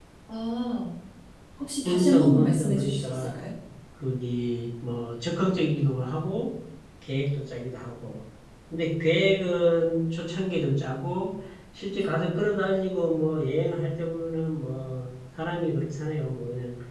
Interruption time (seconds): 2 s

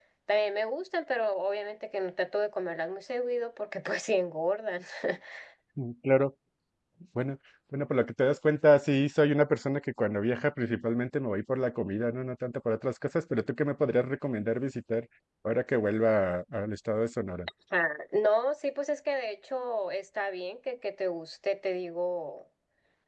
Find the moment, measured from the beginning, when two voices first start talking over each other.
none

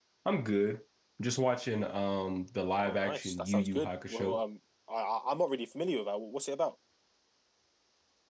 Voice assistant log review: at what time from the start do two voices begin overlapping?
3 s

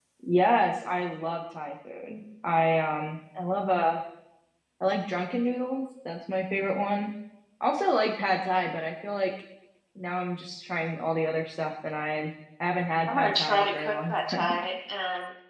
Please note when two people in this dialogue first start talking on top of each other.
13 s

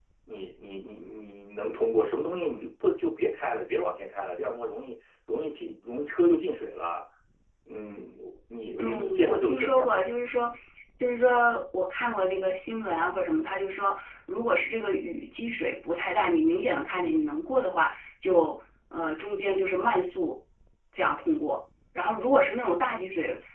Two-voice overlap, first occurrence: 9 s

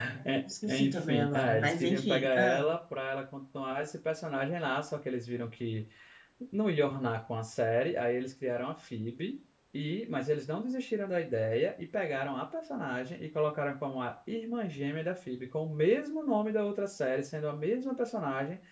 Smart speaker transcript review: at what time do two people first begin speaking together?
1 s

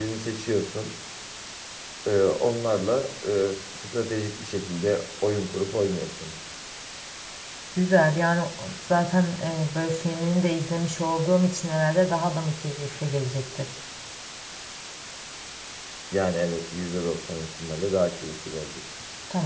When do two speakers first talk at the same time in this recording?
none

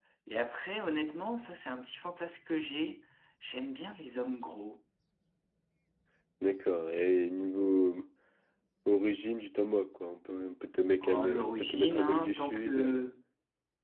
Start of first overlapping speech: 11 s

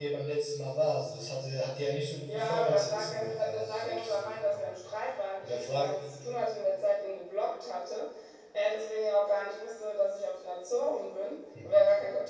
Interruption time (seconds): 2 s

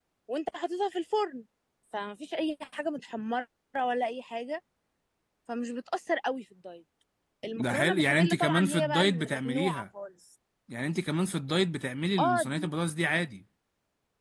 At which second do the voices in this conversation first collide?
8 s

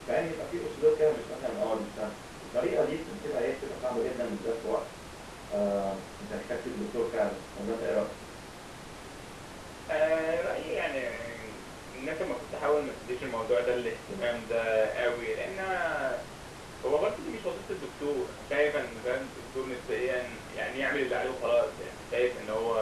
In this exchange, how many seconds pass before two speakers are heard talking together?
none

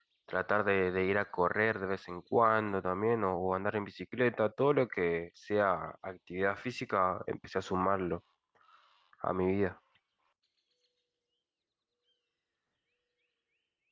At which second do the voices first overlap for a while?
none

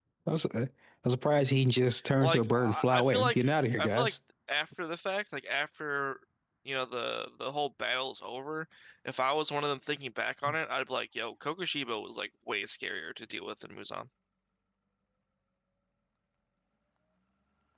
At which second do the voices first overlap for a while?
2 s

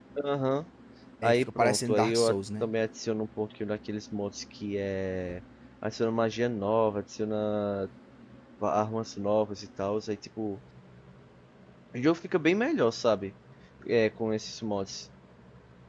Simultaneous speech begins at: 1 s

